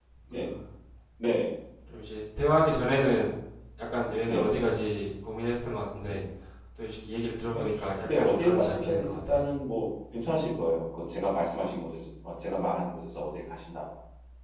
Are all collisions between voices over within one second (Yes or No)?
No